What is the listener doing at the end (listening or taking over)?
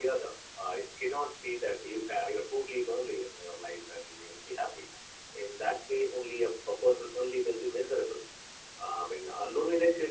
listening